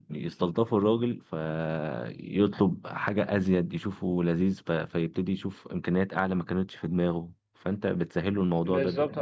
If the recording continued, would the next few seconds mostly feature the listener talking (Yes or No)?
Yes